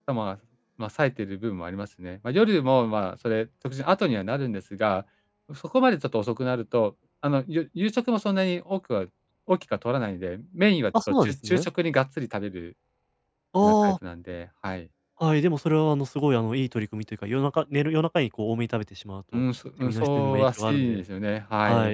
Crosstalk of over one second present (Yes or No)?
Yes